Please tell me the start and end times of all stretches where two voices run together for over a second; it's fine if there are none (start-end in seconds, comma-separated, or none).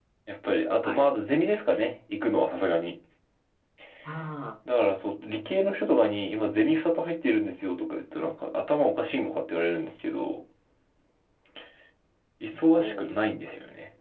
none